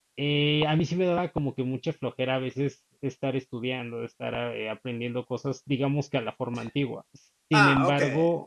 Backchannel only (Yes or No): Yes